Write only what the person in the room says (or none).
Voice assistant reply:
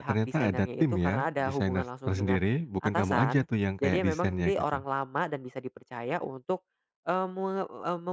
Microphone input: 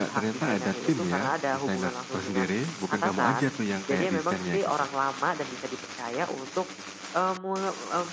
none